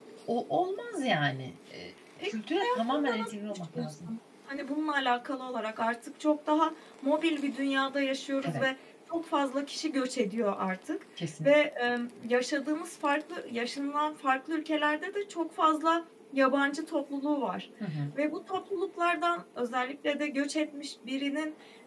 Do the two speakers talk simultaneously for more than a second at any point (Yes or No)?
Yes